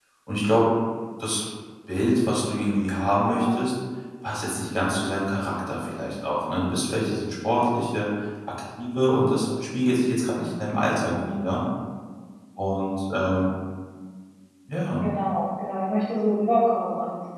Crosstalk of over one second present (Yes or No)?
No